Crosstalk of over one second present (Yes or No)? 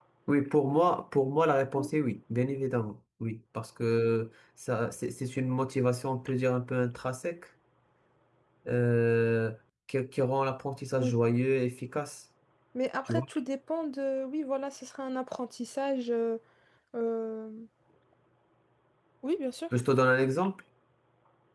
No